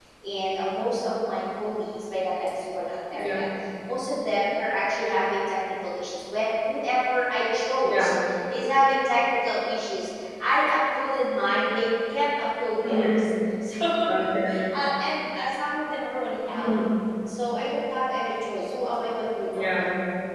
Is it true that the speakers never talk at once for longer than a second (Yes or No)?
Yes